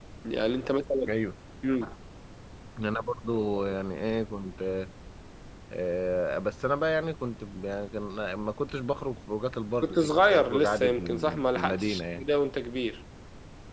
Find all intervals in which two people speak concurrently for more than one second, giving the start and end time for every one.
9.8-12.2

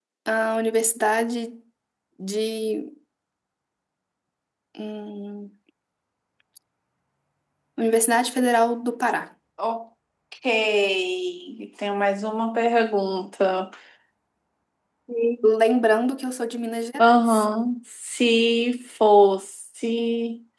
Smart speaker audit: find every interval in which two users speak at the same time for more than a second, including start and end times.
none

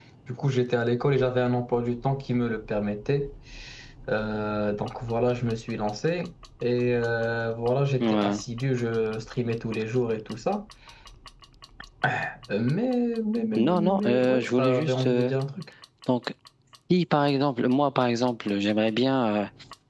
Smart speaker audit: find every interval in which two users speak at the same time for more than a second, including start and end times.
13.6-15.3

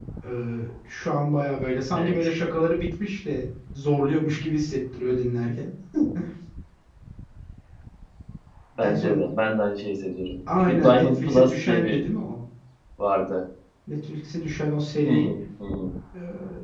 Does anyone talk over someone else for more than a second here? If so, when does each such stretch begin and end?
10.6-12.0

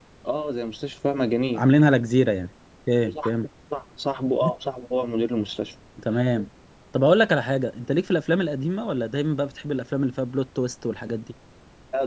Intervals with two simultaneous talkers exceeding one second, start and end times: none

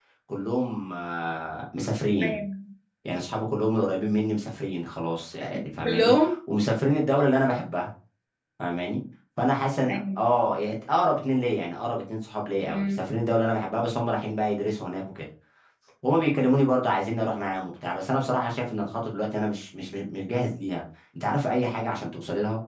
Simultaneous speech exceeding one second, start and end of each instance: none

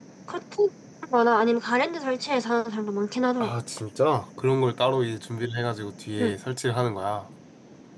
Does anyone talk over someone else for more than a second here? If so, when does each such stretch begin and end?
none

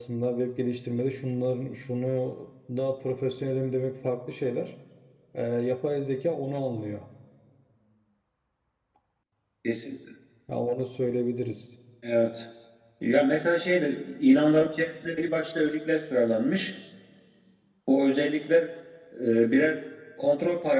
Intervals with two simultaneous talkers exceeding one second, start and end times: none

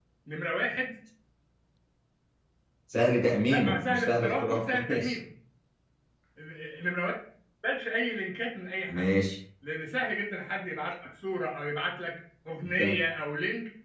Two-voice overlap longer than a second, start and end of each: 3.5-5.2

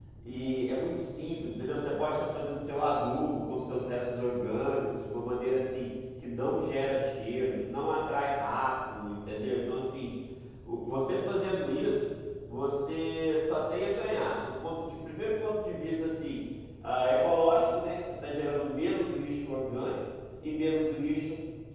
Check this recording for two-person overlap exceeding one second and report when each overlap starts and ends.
none

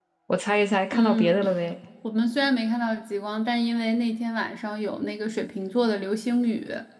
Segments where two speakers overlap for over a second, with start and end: none

